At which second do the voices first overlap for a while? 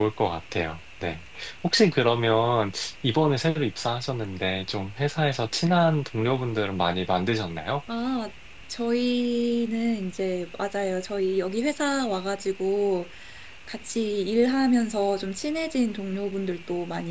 none

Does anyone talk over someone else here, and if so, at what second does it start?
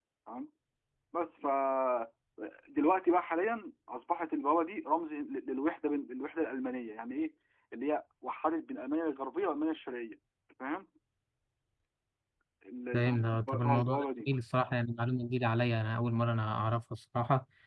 12.9 s

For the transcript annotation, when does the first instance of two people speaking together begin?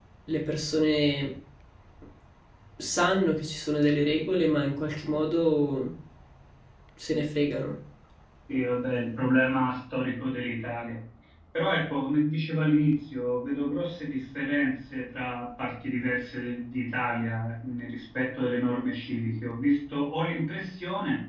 none

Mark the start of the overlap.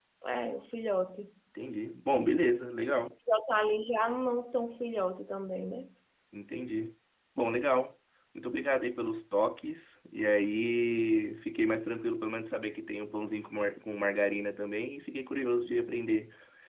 none

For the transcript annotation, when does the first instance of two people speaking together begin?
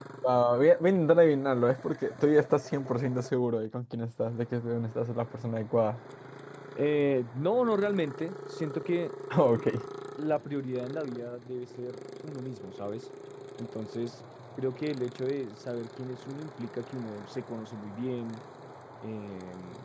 none

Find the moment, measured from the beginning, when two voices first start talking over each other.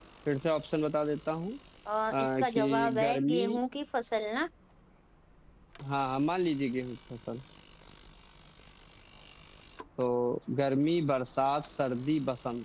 2.1 s

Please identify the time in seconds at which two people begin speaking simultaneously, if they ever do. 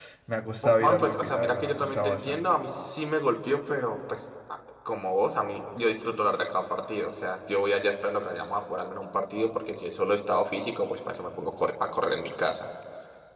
0.8 s

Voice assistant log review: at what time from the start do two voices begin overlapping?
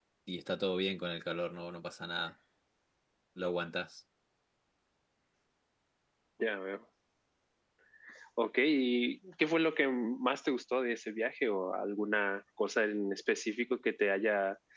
none

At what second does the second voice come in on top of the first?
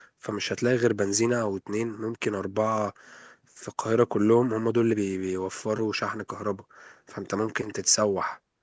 none

